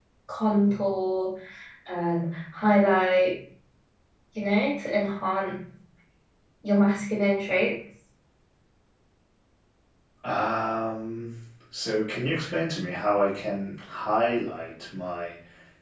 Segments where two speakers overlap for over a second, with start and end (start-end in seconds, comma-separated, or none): none